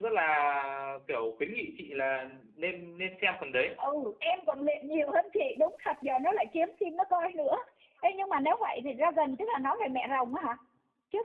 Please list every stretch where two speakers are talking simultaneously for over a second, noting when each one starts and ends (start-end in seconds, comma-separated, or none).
none